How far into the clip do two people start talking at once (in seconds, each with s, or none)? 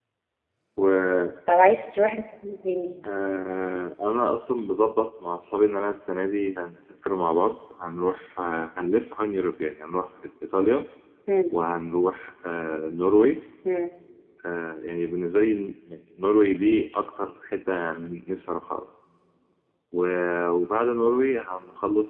none